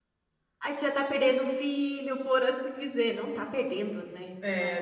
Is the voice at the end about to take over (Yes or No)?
Yes